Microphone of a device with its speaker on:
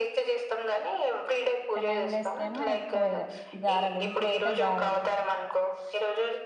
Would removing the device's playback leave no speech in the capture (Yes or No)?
No